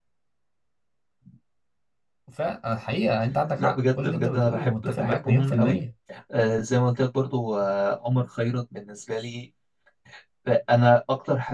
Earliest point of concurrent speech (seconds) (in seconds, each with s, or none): 3.6 s